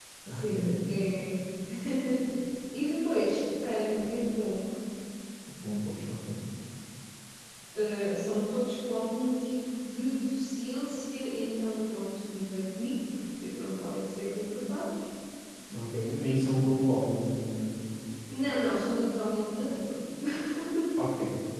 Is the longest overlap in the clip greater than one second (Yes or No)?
No